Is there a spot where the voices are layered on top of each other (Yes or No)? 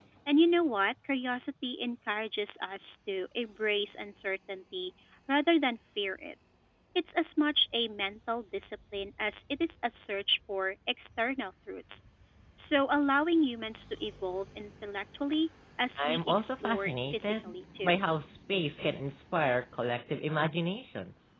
Yes